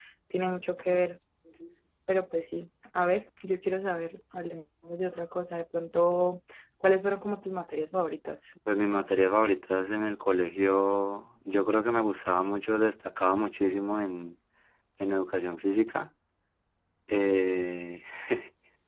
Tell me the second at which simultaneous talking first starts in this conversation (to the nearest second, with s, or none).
none